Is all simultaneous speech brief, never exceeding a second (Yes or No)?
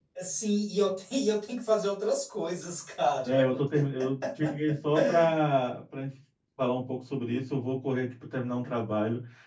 Yes